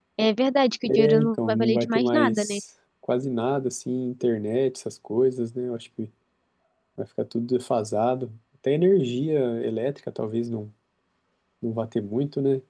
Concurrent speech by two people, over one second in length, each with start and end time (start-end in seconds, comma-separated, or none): 0.9-2.6